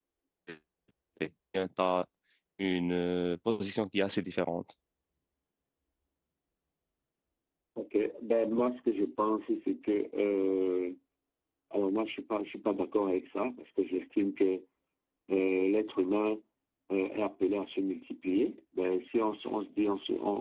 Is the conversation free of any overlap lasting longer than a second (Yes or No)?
Yes